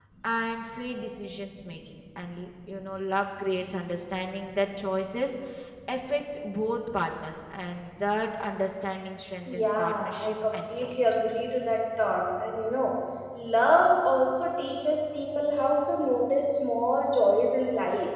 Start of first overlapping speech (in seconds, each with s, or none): 9.5 s